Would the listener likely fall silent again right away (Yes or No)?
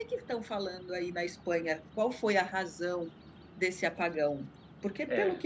Yes